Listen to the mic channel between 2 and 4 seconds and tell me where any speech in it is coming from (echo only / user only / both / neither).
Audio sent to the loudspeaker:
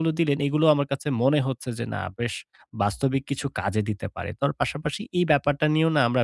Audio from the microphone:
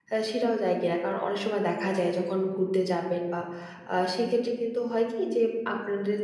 user only